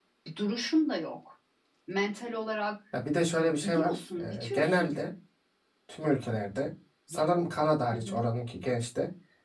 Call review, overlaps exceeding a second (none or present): present